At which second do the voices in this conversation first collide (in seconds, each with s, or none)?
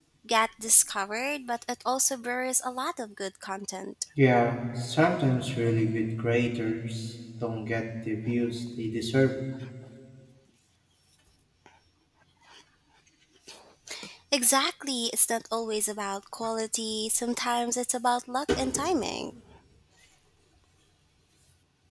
none